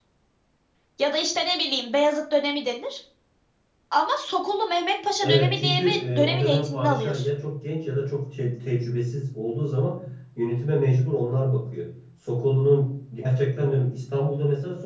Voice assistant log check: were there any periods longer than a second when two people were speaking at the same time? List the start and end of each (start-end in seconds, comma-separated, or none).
5.2-7.2